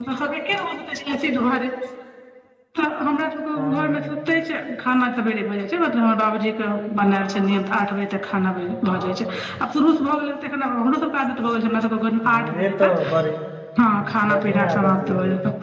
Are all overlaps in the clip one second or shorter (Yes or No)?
No